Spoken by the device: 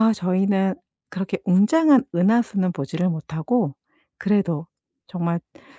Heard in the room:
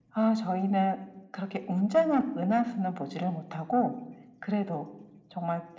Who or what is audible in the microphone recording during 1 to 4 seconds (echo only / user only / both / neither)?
echo only